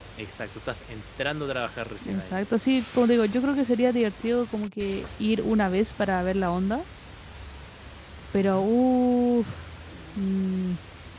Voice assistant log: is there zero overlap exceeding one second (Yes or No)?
Yes